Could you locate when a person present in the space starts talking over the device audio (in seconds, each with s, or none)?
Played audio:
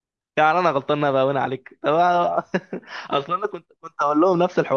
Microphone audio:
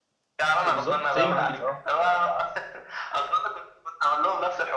0.6 s